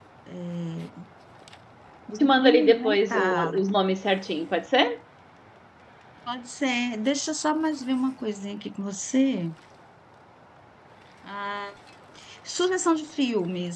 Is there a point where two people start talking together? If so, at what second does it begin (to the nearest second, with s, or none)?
2 s